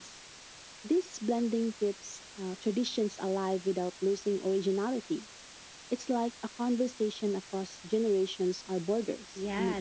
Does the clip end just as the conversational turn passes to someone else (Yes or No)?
Yes